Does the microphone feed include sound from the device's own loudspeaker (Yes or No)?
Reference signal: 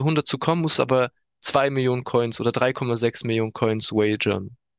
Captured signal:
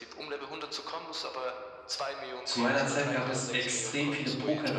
Yes